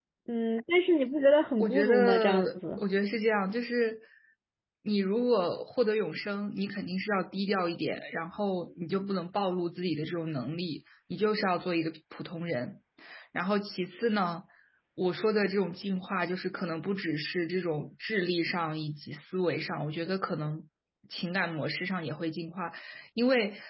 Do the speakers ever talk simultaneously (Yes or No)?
Yes